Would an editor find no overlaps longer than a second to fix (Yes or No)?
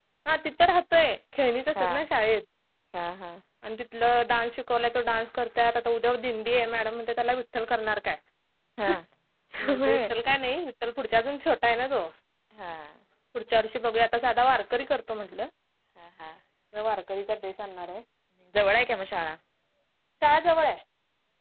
Yes